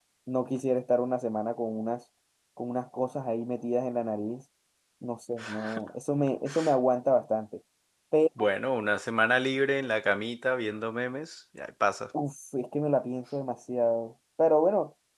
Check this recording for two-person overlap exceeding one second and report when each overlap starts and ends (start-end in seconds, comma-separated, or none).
none